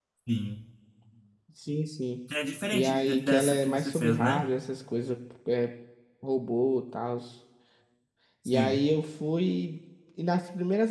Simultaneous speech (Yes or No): Yes